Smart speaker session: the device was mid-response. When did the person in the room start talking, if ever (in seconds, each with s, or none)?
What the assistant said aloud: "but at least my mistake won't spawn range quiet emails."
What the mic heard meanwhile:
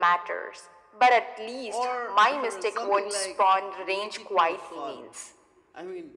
1.6 s